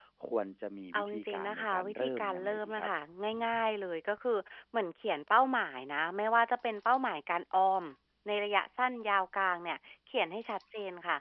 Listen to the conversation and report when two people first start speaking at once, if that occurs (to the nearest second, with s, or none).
1 s